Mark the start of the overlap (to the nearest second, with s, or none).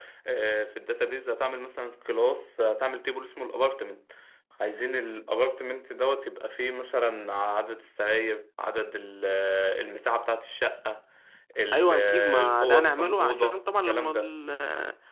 12 s